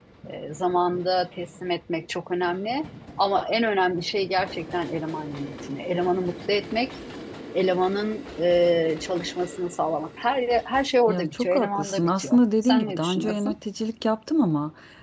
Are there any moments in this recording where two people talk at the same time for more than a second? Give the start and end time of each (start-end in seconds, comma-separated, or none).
11.1-13.6